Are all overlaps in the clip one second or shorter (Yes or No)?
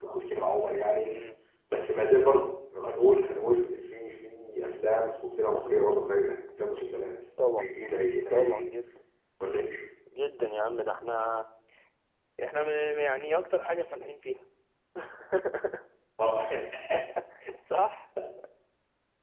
Yes